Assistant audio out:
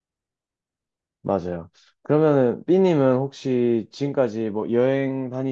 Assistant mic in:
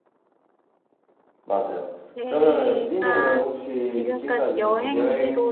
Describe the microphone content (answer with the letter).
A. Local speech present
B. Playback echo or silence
A